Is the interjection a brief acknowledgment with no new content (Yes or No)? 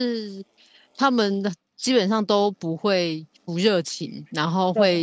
Yes